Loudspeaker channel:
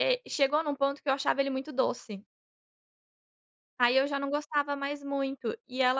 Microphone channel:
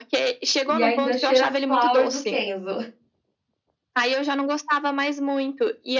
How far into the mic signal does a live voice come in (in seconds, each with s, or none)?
0.7 s